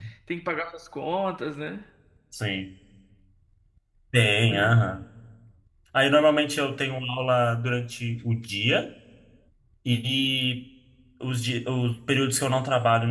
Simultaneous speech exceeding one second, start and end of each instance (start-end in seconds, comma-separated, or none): none